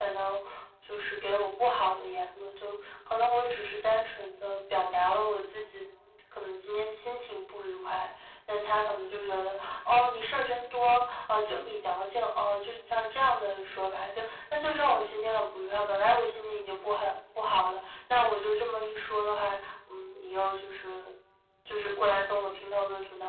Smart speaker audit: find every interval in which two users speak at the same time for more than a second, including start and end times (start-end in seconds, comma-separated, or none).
none